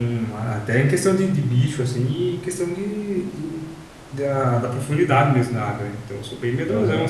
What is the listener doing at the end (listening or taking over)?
taking over